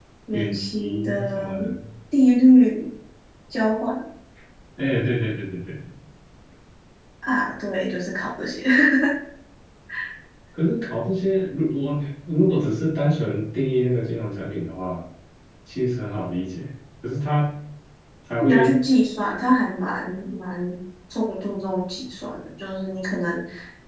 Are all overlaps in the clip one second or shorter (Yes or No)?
No